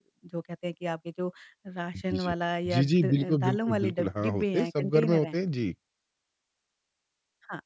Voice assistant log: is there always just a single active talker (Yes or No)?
No